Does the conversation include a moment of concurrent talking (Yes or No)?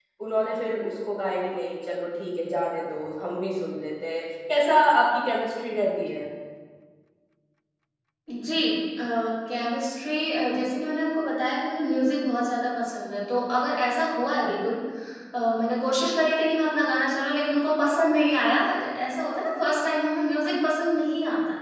No